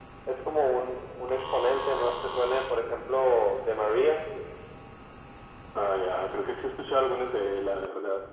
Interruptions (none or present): none